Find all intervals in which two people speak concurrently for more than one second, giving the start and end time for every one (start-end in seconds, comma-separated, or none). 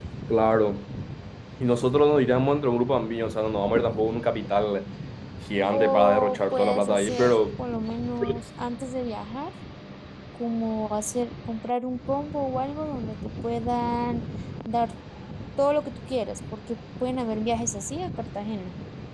5.7-7.4